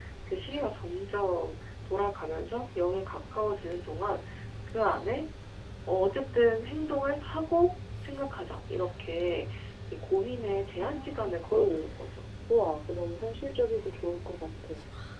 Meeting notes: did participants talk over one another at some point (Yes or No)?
Yes